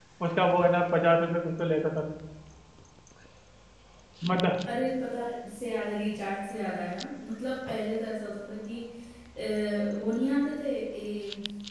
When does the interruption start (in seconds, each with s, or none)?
none